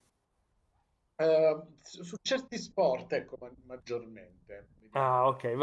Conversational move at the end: taking over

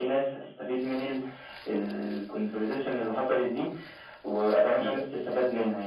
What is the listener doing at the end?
listening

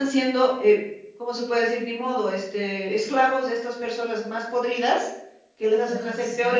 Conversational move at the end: listening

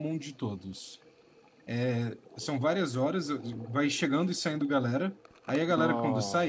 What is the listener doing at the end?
listening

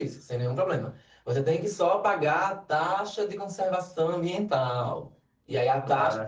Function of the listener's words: listening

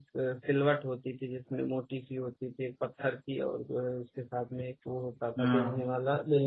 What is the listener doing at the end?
listening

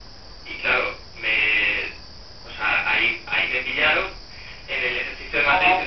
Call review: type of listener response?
listening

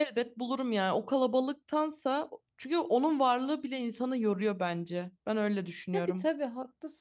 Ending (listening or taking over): taking over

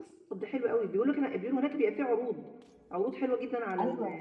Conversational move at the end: taking over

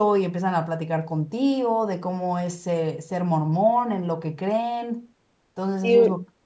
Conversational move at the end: taking over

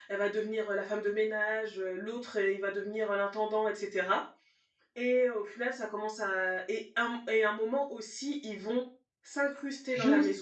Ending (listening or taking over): taking over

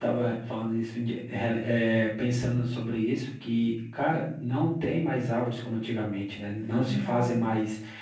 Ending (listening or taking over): listening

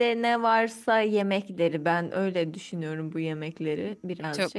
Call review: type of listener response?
taking over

